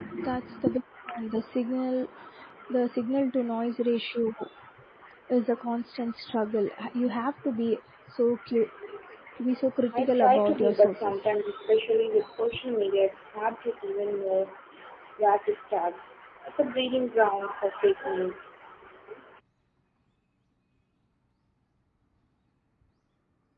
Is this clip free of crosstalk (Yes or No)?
No